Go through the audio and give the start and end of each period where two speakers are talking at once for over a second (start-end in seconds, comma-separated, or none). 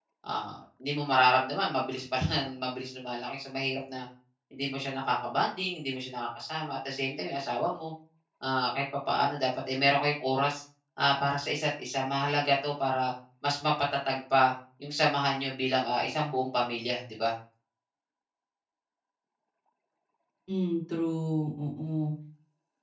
none